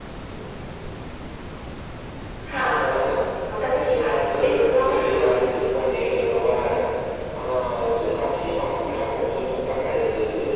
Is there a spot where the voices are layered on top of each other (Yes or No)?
Yes